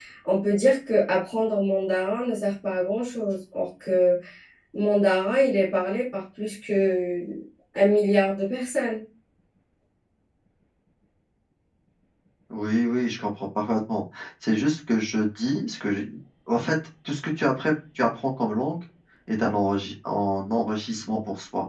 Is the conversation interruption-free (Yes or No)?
Yes